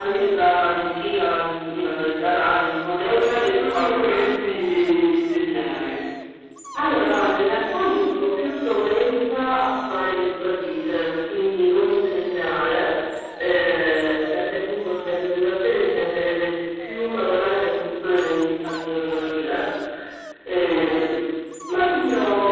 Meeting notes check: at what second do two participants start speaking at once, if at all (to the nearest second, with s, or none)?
3 s